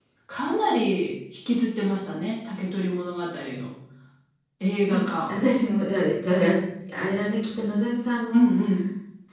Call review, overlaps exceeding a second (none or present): none